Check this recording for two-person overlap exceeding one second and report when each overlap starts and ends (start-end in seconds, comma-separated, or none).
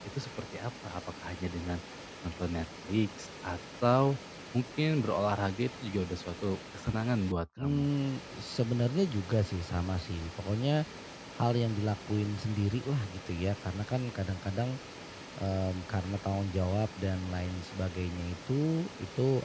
none